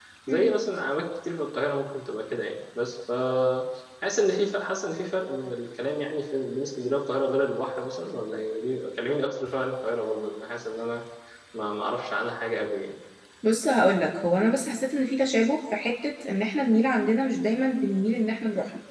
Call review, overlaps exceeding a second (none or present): none